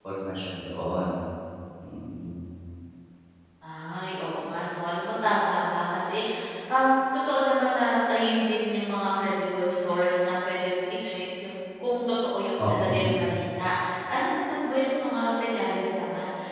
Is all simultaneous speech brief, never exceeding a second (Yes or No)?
Yes